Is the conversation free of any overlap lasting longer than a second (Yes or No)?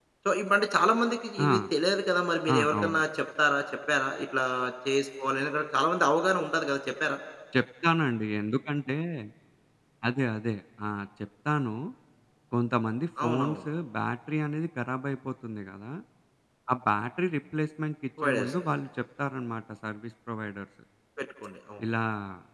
Yes